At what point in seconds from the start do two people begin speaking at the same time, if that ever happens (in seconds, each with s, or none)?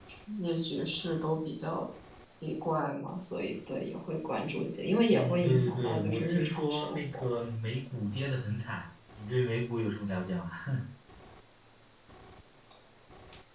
5.1 s